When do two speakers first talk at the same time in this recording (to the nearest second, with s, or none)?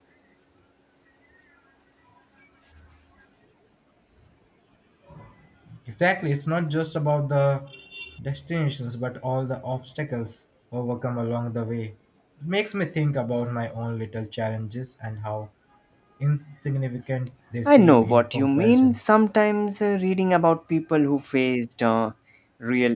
18 s